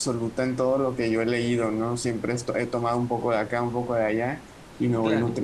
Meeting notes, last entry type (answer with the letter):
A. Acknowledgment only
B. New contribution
A